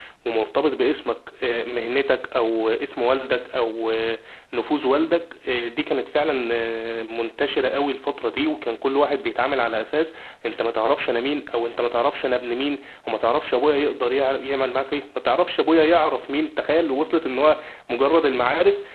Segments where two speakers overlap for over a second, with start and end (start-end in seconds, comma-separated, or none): none